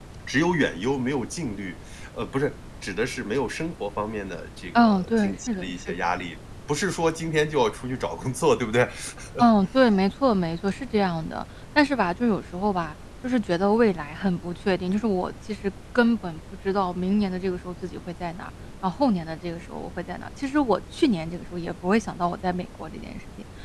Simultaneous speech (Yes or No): Yes